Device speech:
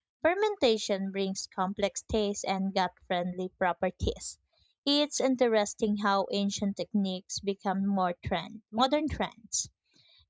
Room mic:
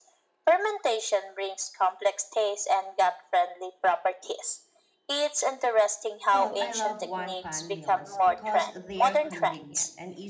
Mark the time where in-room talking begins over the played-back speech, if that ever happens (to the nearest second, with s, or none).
6 s